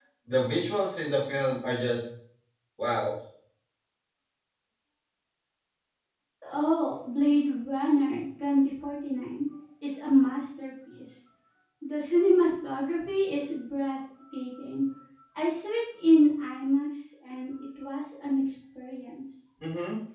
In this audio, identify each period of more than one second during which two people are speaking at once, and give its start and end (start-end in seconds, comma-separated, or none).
none